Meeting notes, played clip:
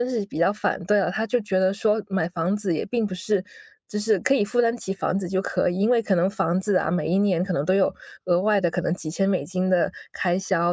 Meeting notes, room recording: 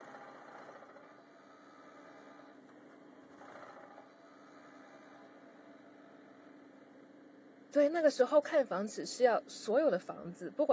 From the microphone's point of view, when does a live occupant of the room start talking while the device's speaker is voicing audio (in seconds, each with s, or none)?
7.7 s